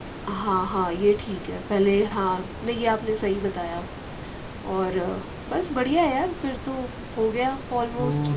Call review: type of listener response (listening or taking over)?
taking over